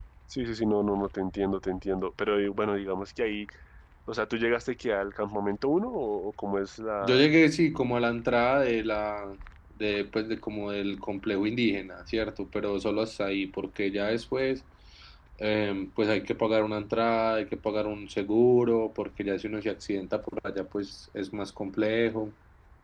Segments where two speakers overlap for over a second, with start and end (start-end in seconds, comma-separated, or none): none